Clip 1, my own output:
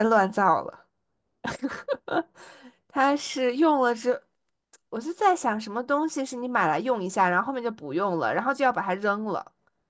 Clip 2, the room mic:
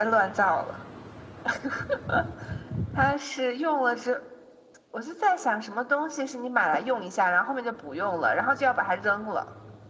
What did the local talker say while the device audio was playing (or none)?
none